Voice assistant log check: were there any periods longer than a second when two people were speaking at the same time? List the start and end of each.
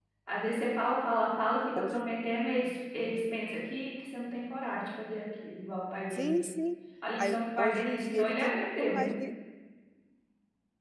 7.2-9.1

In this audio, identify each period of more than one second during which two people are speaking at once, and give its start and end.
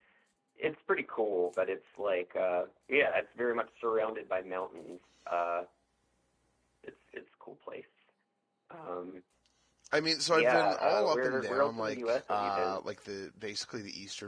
10.3-12.8

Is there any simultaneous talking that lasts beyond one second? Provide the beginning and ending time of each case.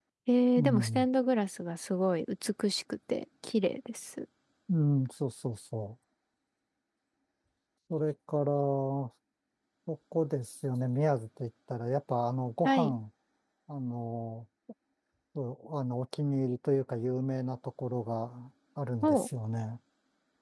none

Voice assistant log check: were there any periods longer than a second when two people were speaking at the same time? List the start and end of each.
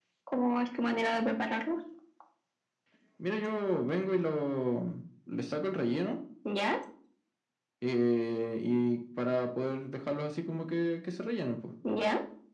none

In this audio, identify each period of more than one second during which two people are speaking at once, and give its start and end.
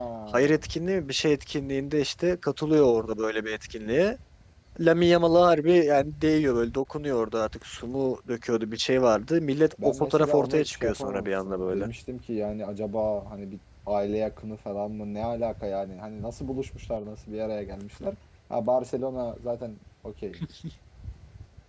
9.8-11.9

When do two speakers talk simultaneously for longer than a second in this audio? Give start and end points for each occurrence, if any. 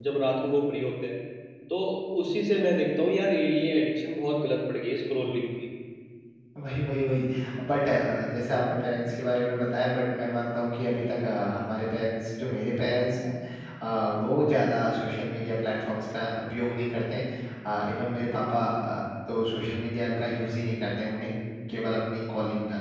none

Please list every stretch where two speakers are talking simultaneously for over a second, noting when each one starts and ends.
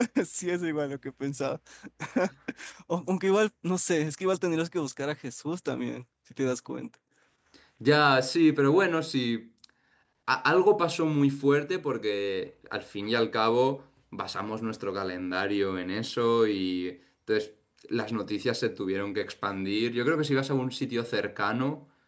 none

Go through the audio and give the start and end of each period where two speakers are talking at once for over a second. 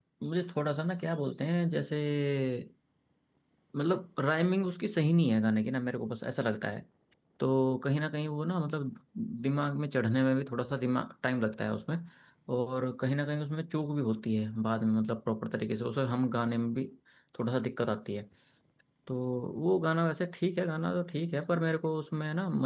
none

